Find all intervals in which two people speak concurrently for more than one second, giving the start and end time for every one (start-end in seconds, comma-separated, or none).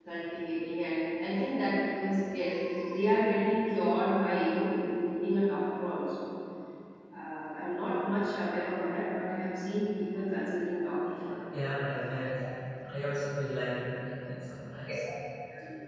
none